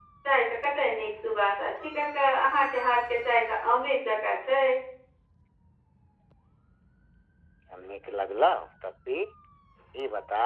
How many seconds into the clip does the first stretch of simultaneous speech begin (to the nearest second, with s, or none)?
none